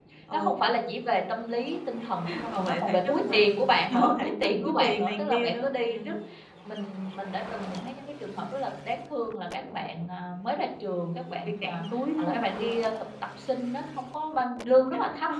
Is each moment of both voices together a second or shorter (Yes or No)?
No